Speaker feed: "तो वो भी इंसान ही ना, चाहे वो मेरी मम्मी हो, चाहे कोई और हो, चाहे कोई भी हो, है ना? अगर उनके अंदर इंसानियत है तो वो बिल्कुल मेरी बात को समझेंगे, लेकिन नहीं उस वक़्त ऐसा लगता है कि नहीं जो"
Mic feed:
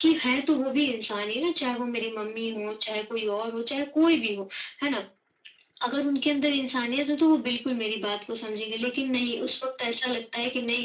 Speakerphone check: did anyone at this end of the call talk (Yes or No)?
No